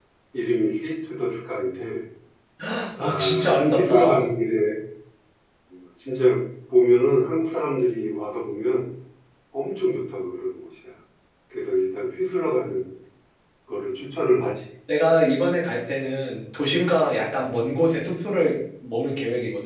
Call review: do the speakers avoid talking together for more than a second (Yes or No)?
No